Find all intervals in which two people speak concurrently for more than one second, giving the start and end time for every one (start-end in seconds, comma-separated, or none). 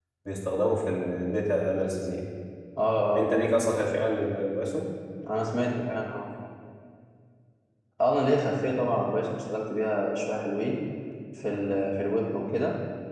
none